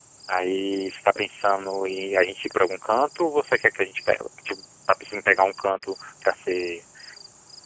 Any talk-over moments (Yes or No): No